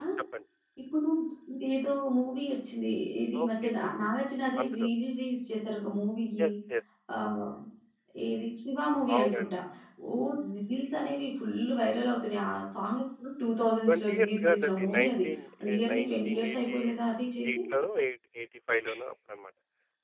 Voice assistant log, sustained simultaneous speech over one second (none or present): present